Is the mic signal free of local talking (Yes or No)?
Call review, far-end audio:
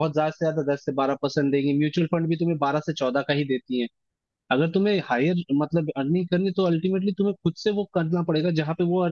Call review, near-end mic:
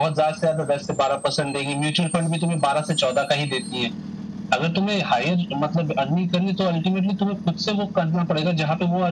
Yes